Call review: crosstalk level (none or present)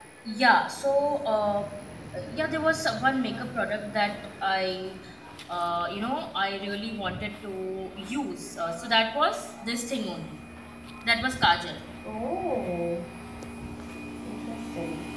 none